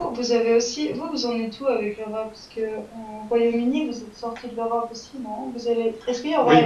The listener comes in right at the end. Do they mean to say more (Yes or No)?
No